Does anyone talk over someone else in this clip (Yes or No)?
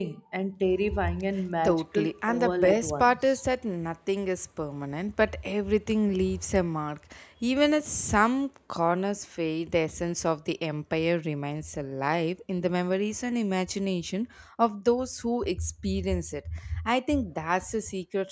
Yes